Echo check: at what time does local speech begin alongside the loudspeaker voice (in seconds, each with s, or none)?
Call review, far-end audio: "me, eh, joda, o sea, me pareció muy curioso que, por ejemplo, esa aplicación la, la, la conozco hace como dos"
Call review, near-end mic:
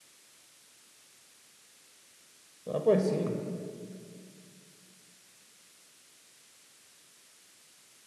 2.6 s